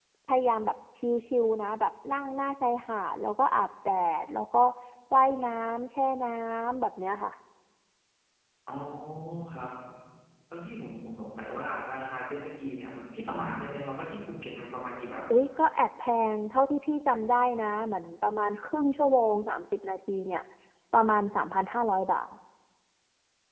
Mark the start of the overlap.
none

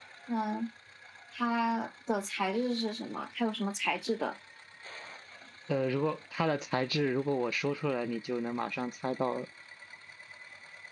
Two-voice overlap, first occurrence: none

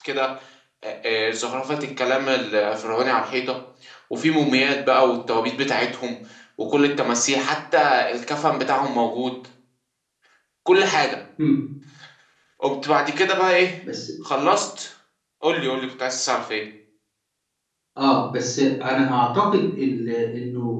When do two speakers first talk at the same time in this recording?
none

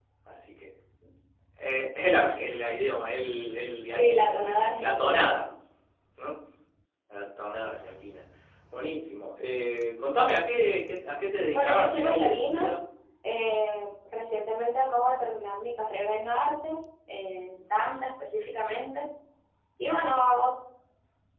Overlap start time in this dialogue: 4.0 s

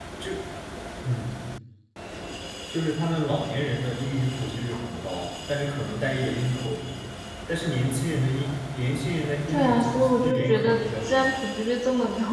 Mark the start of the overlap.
9.5 s

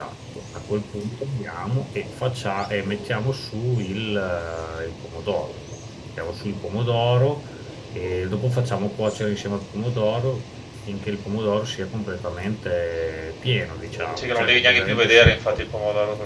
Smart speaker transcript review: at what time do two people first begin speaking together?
14.2 s

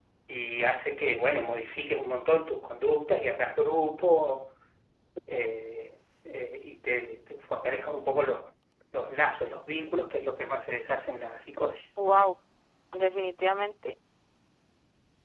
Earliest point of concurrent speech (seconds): none

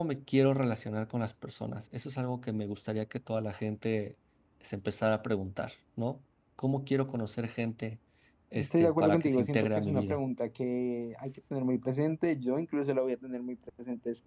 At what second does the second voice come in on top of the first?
8.6 s

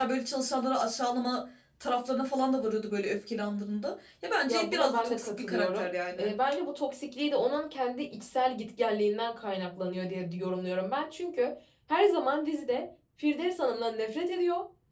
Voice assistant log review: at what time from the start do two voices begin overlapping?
4.5 s

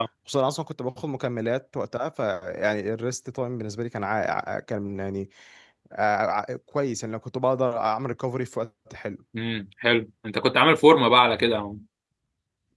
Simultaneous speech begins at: none

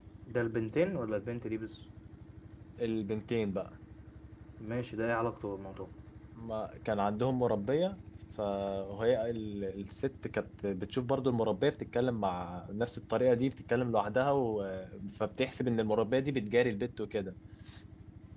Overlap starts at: none

